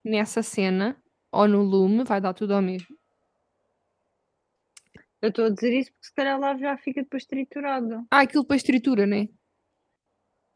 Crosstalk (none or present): none